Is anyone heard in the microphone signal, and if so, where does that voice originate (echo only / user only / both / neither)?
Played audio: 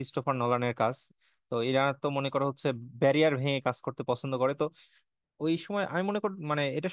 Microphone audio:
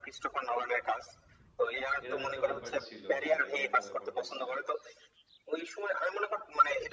both